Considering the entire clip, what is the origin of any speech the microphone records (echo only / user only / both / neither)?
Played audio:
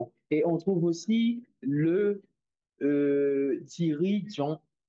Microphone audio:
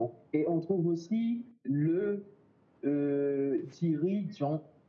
echo only